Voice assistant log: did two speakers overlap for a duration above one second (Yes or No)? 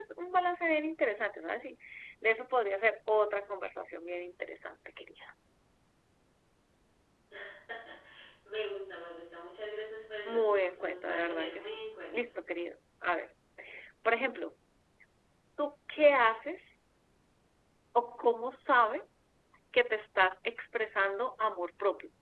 Yes